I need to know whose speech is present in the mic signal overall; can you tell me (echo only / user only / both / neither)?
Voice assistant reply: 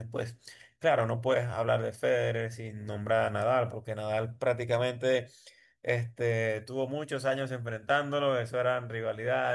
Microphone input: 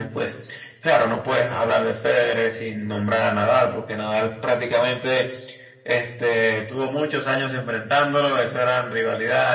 echo only